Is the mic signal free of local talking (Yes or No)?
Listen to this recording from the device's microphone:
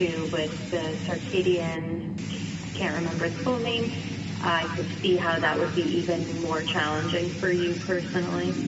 Yes